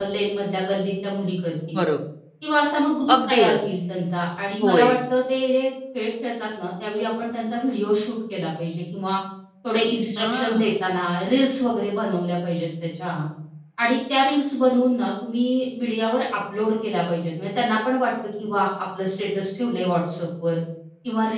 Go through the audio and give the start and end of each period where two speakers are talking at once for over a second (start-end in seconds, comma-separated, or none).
none